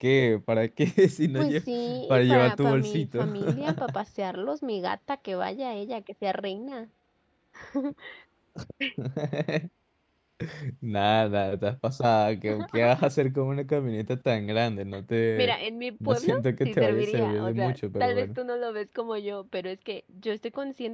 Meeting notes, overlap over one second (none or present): present